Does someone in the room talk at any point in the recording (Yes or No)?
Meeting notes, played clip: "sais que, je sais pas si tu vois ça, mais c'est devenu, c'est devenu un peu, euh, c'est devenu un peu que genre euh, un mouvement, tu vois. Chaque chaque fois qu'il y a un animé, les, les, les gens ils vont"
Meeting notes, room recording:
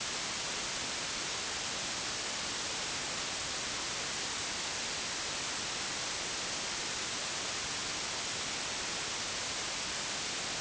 No